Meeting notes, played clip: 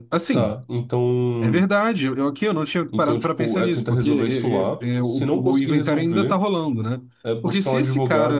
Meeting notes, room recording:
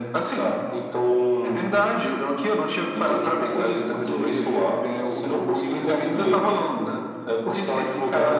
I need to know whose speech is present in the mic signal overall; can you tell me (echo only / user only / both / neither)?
both